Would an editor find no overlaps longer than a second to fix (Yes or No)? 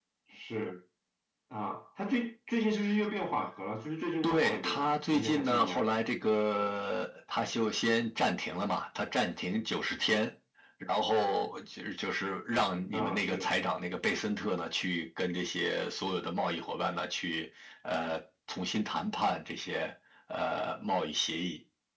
No